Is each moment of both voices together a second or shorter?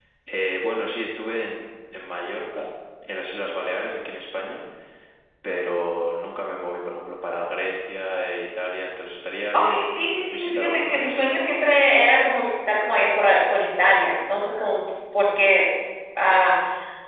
No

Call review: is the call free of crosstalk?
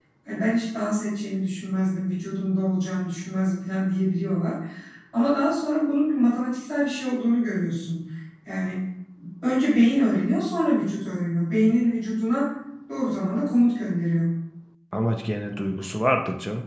Yes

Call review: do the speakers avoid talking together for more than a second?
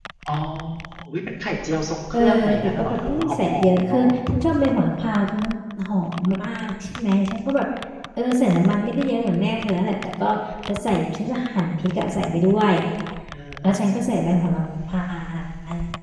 No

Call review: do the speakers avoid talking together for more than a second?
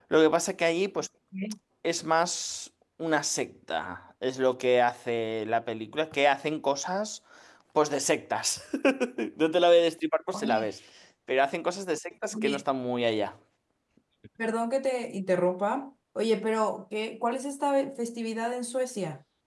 Yes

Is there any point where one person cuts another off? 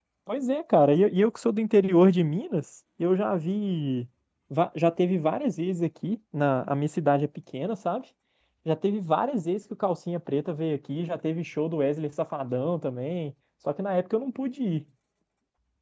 No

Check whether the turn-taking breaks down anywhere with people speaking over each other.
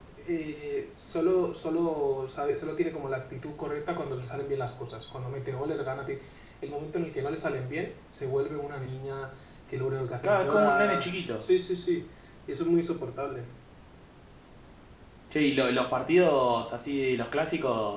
Yes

